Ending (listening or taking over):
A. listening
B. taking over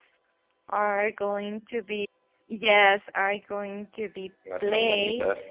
A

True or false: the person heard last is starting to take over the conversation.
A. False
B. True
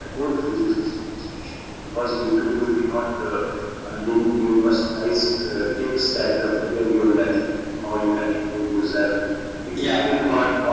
A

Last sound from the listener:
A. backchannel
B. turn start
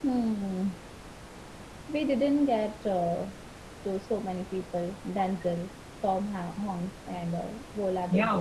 B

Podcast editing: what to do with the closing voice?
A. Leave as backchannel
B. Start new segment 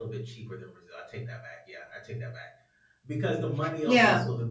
A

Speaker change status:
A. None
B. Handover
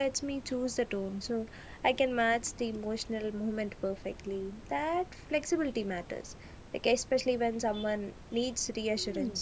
B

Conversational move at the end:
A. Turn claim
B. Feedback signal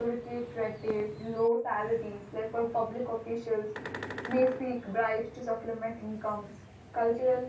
B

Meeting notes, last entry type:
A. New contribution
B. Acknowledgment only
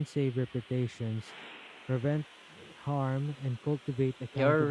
A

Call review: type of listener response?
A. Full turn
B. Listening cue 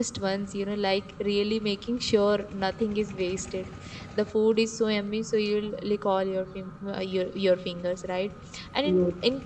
B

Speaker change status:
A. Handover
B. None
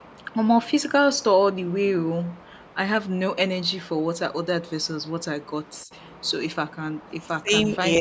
B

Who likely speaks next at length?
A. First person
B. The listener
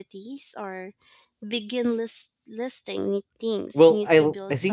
B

